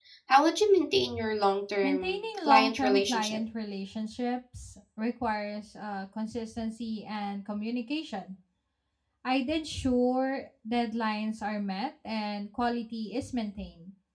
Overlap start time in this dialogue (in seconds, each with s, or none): 1.8 s